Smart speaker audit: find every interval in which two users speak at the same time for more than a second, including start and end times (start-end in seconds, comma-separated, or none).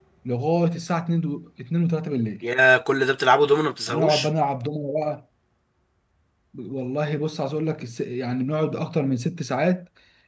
none